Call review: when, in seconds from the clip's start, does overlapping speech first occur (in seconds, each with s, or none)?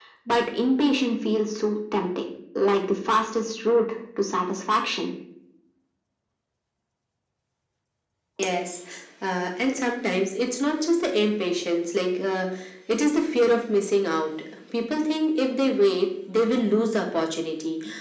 none